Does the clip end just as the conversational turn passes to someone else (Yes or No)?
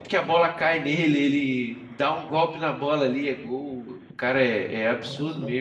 Yes